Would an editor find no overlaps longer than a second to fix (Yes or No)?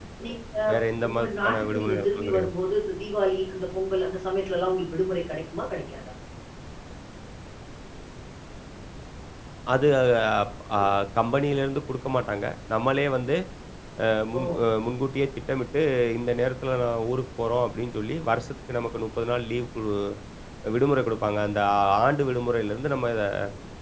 No